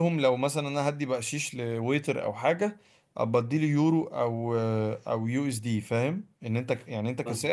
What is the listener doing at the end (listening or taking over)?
listening